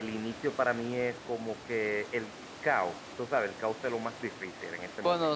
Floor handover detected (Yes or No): Yes